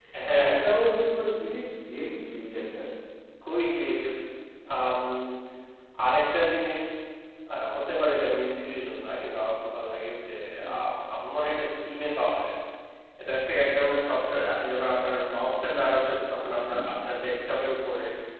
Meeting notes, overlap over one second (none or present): none